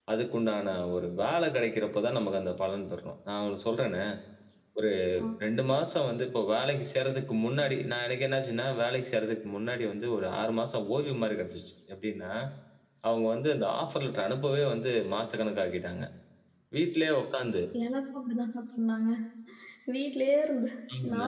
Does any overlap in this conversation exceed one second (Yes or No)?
No